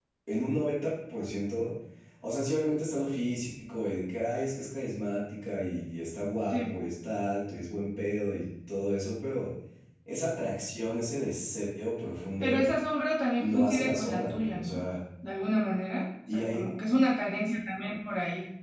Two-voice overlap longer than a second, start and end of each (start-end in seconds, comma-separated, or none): 13.3-14.8